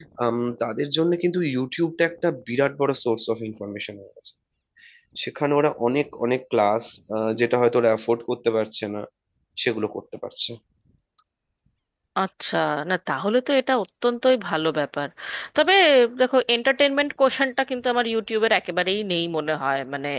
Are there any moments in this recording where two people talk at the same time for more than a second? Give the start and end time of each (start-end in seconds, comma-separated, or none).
none